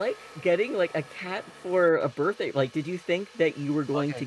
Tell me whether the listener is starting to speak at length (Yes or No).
Yes